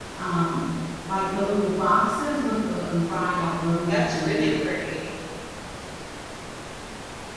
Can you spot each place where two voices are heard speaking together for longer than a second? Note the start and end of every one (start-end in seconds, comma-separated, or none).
3.0-4.6